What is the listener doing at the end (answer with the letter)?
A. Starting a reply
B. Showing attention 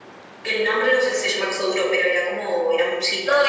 A